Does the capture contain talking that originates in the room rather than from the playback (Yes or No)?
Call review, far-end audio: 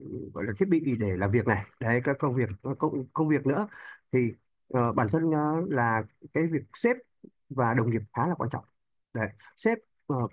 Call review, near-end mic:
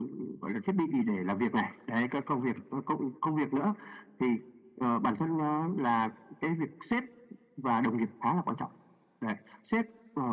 No